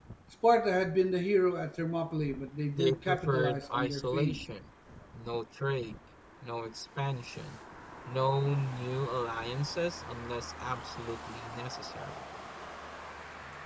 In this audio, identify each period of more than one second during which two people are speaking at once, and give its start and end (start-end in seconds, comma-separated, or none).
2.7-4.4